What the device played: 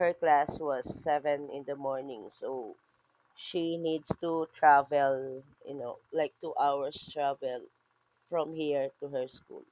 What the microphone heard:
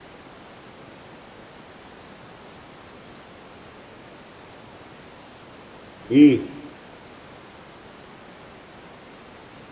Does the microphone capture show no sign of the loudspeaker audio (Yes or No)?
Yes